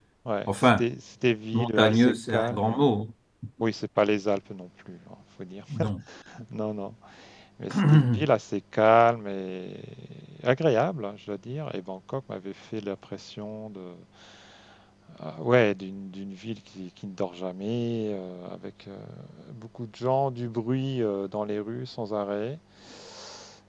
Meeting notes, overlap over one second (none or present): present